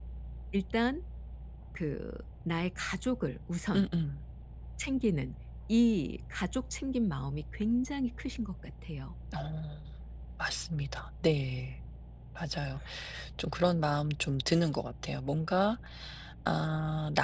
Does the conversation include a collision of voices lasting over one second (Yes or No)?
No